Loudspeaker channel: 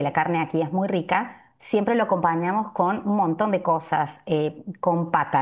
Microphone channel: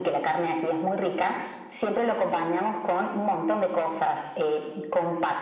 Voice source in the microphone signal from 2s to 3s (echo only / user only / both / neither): echo only